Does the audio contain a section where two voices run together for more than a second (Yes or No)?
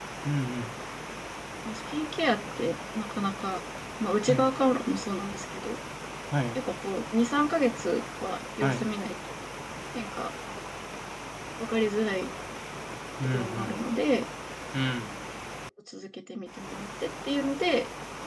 No